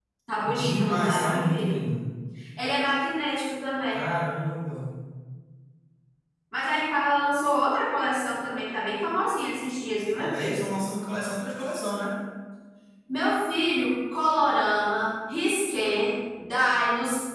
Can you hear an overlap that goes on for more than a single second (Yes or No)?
Yes